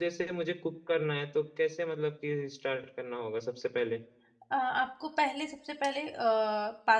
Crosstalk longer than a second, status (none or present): none